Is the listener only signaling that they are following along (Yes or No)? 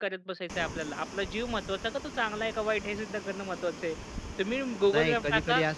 No